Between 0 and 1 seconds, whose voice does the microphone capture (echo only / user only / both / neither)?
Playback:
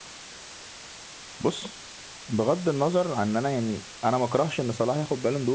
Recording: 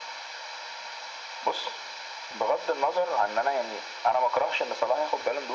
neither